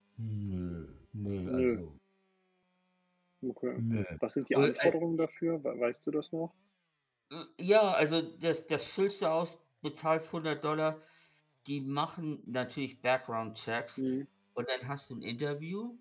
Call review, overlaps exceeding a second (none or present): none